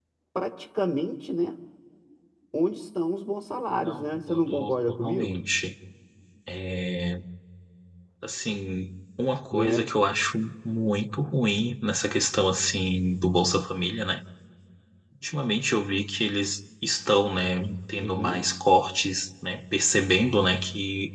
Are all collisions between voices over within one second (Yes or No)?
No